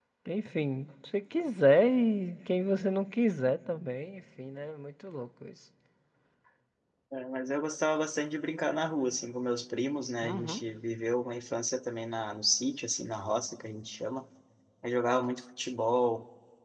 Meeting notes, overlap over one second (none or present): none